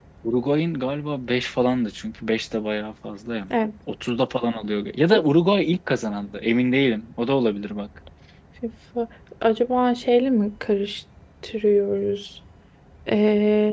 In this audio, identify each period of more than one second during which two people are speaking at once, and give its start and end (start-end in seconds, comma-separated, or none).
none